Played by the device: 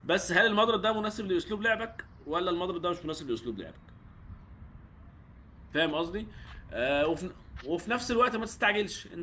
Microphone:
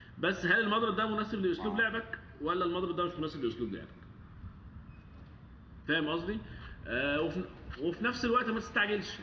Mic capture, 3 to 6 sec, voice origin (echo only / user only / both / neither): echo only